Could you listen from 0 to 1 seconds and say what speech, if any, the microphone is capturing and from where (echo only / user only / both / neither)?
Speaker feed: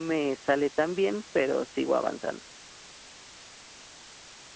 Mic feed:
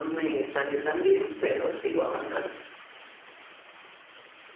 echo only